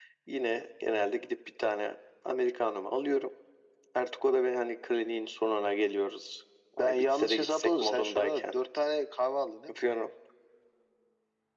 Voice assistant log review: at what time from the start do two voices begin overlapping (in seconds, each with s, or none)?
6.8 s